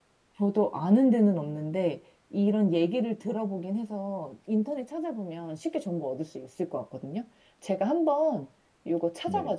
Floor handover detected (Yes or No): No